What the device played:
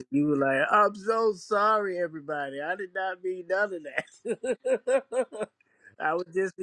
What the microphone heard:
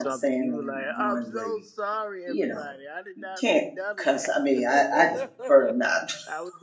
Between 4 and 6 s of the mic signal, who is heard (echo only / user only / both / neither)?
both